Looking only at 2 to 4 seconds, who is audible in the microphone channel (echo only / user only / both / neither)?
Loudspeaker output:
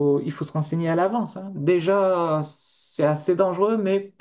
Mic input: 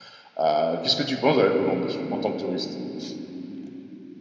user only